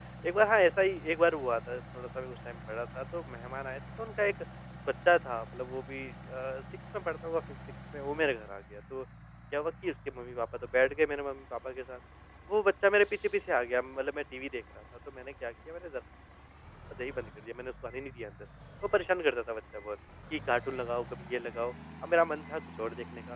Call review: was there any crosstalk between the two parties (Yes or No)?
No